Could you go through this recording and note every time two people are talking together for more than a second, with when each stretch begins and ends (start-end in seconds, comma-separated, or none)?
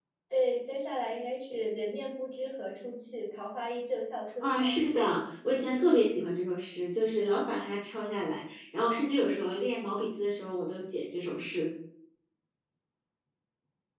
none